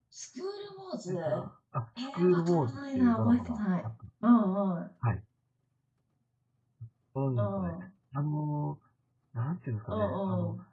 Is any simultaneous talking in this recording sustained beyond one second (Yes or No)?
Yes